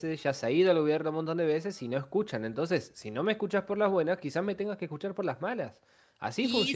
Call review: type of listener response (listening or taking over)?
taking over